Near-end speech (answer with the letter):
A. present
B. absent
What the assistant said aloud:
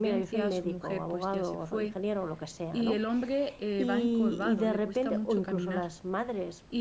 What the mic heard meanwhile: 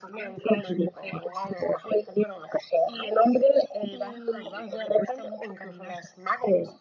B